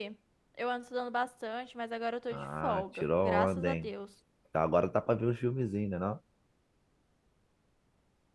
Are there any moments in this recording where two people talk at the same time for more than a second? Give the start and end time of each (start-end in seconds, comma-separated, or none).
2.3-3.9